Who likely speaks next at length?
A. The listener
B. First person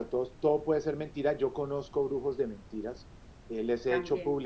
B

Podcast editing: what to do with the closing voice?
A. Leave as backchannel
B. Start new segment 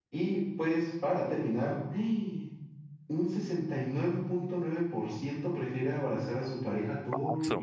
B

